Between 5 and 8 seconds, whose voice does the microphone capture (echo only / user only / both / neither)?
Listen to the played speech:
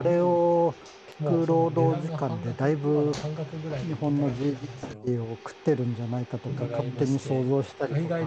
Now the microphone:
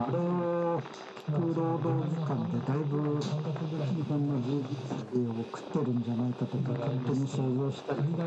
echo only